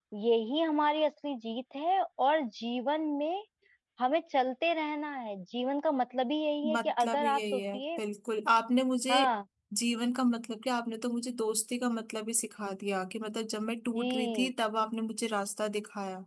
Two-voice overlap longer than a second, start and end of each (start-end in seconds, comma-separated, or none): 6.7-8.0